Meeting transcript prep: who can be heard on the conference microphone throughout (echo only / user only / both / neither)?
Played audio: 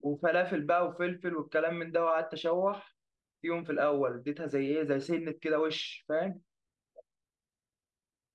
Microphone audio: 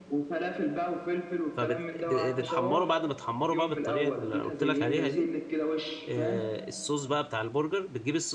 both